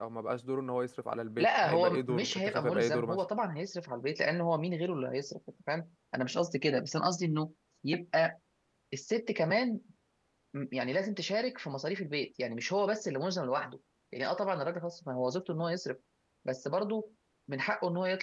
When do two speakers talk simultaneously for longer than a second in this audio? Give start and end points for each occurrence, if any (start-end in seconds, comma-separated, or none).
1.4-3.2